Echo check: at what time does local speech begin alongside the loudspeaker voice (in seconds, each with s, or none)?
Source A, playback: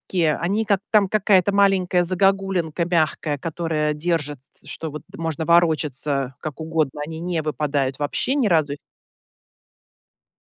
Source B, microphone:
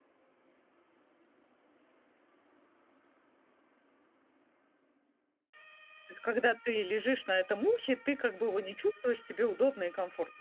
6.1 s